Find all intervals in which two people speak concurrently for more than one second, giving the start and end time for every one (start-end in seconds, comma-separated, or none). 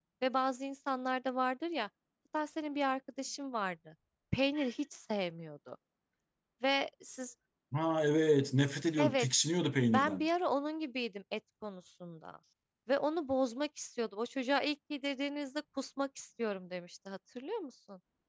none